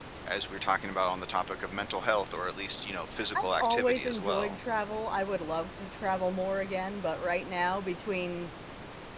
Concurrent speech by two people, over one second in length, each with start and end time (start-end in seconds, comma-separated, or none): 3.4-4.6